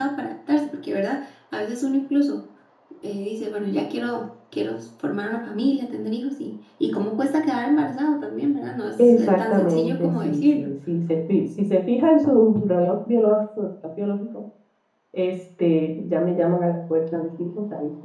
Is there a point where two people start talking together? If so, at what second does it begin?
9.0 s

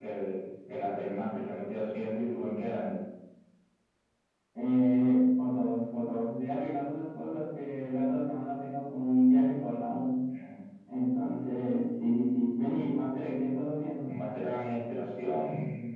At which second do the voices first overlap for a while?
none

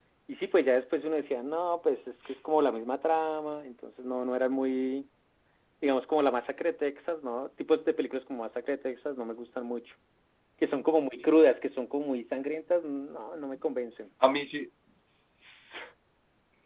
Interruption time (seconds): none

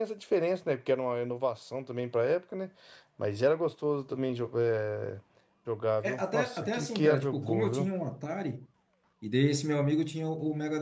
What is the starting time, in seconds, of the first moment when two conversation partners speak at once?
6.0 s

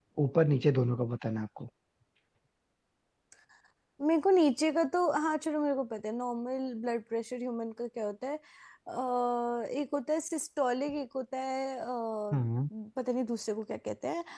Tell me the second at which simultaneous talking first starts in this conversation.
none

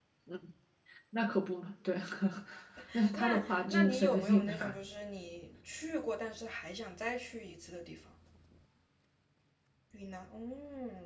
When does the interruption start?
3.2 s

